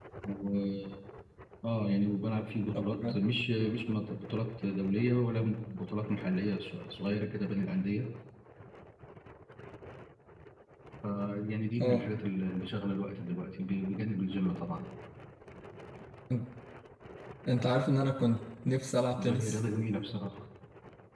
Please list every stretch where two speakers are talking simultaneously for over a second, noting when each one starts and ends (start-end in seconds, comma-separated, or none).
none